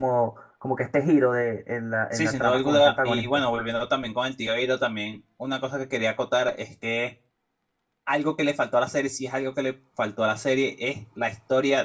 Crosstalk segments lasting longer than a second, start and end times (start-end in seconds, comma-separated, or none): 2.1-3.4